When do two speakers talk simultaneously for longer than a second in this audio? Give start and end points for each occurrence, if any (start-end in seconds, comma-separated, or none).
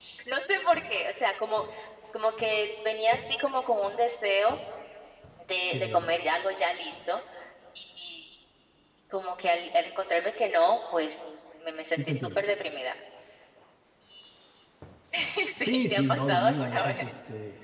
15.6-17.0